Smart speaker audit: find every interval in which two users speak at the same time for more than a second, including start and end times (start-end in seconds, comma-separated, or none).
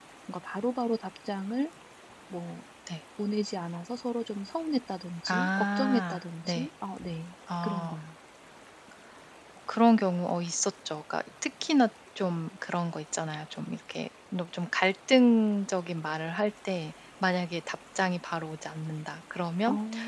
5.3-6.7